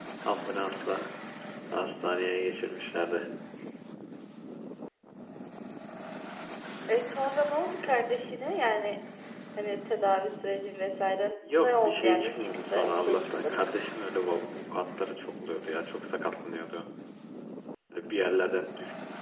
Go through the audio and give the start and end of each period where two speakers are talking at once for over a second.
11.5-13.7

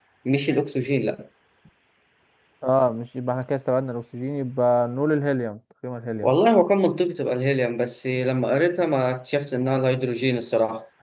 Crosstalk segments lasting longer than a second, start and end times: none

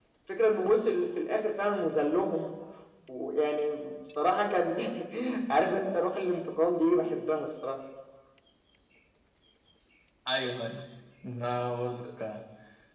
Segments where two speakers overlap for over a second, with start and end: none

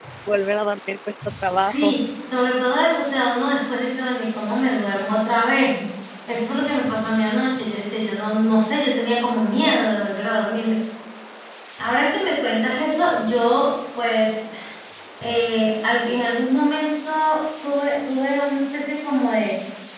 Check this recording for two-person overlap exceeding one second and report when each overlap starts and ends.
none

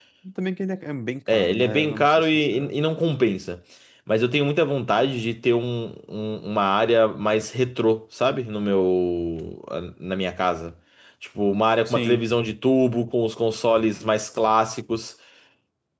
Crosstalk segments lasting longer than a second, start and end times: 1.3-2.7

